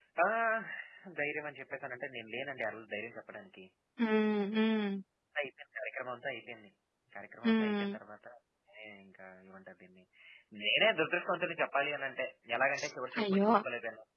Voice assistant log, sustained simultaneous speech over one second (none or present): none